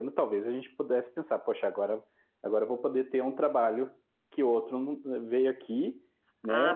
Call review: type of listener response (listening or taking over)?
taking over